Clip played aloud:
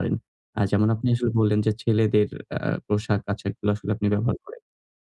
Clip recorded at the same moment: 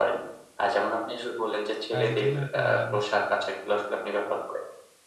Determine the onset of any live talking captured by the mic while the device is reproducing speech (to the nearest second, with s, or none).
2 s